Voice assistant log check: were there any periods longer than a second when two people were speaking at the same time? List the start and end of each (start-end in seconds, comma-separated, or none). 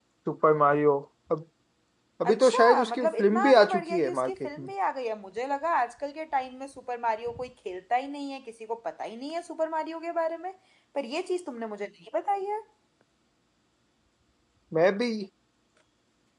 2.2-4.7